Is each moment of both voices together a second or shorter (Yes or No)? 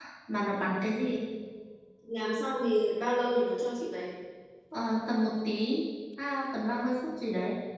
Yes